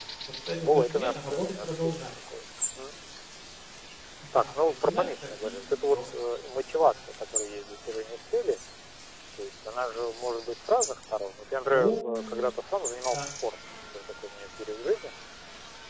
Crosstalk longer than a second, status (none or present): present